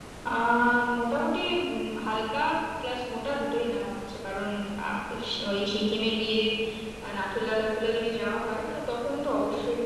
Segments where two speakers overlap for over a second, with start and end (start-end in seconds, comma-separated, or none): none